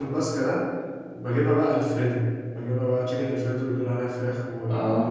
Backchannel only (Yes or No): Yes